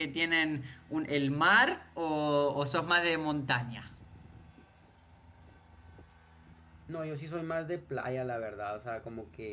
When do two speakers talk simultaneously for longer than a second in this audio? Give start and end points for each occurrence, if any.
none

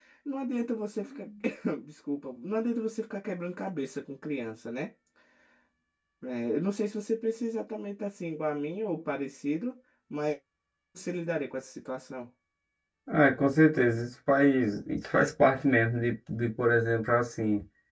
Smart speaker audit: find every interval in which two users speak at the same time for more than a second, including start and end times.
none

